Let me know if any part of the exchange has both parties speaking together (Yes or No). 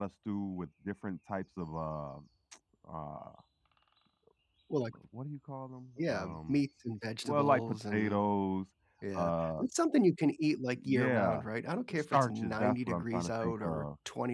Yes